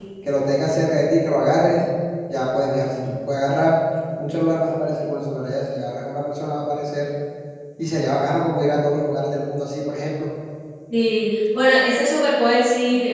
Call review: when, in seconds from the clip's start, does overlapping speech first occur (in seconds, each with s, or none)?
none